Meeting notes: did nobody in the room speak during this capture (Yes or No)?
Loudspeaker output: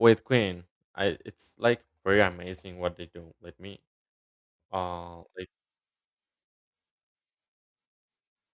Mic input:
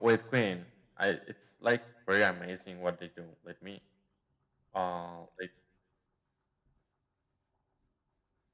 Yes